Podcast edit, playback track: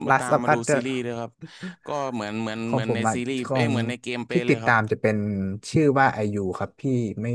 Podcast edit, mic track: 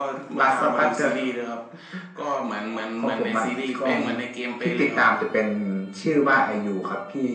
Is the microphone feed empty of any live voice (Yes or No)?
Yes